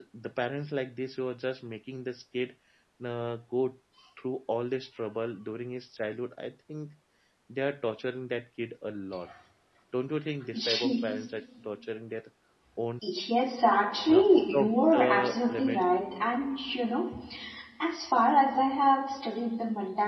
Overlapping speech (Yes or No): Yes